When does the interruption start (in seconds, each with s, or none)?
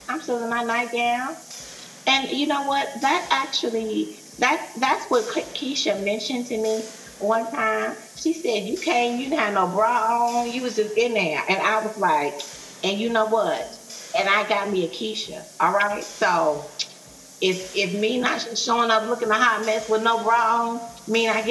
none